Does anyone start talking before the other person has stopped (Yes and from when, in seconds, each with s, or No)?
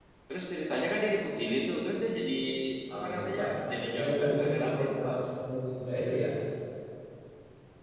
Yes, from 2.9 s